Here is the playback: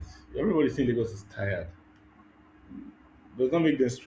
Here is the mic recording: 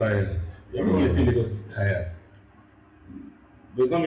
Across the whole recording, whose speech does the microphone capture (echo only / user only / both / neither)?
both